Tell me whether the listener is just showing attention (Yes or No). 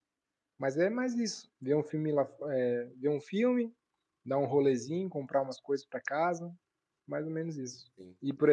No